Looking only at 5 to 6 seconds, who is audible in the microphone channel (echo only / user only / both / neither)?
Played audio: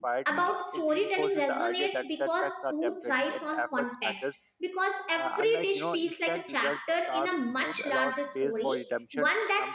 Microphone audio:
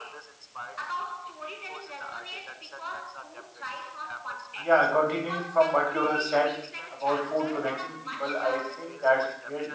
both